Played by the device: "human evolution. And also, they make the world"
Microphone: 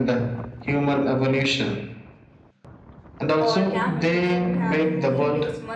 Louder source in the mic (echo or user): echo